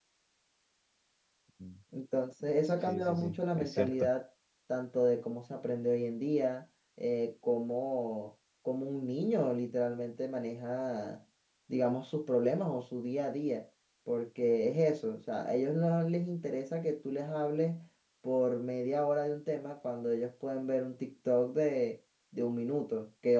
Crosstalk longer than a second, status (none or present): present